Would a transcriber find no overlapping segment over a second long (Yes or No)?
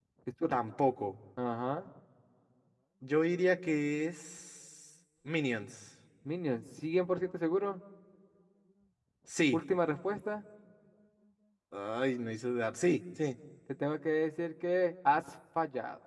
Yes